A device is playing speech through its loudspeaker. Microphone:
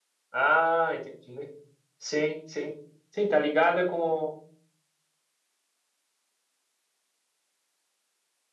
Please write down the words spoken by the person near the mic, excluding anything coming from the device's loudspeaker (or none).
Ah, entendi. Sim, sim. Sim, tá ligada com.